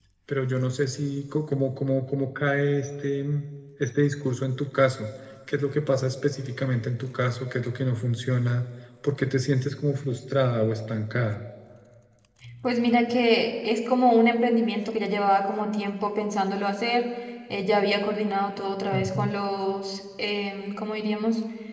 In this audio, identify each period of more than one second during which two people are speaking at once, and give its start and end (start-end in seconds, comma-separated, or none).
none